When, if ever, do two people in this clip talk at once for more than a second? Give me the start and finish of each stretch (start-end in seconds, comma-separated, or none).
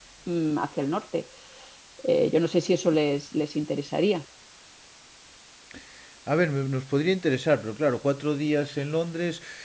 none